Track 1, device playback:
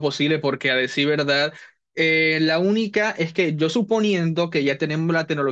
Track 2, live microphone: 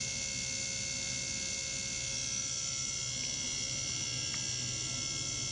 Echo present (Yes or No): No